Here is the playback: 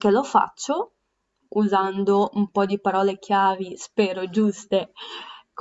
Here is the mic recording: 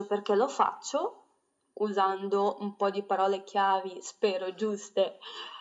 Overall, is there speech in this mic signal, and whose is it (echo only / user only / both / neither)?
echo only